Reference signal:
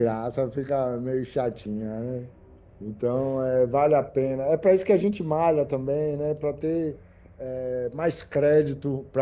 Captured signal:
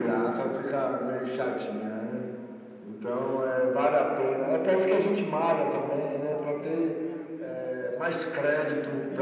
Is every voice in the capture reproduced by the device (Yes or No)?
No